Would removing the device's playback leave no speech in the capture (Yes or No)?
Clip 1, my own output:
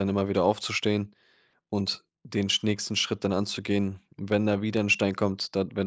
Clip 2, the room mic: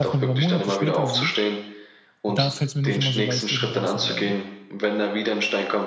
No